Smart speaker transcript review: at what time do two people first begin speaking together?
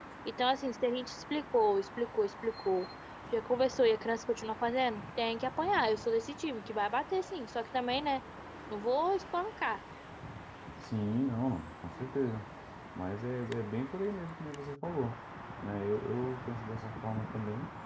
none

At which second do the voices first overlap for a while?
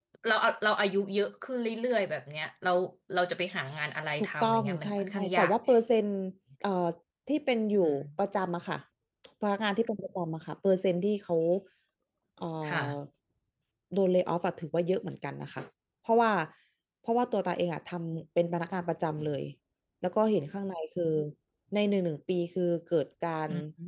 4.2 s

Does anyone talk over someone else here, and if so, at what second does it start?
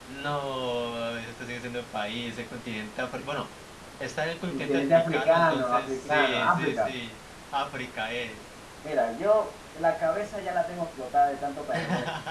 4.5 s

